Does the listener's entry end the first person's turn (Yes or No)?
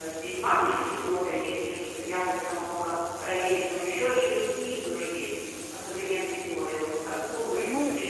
No